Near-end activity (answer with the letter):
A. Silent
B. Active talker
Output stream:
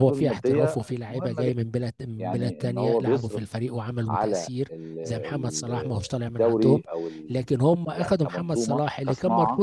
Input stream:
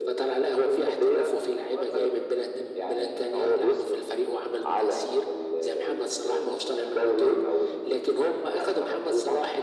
A